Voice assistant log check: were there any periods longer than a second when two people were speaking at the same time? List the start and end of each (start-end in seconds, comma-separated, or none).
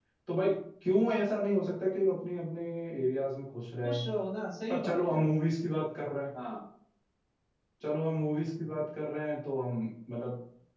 none